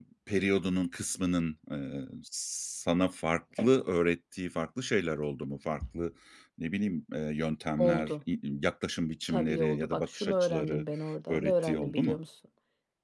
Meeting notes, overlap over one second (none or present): present